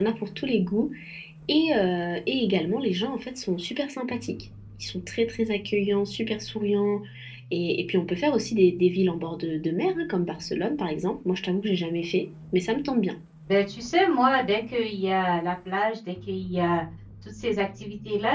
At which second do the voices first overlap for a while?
none

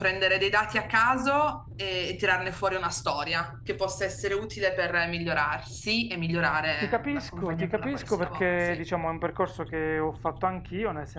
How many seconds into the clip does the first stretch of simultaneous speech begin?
6.8 s

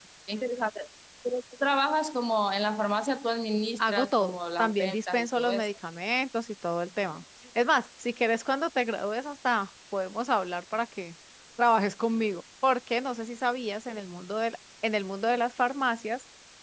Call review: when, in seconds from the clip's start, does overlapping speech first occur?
3.8 s

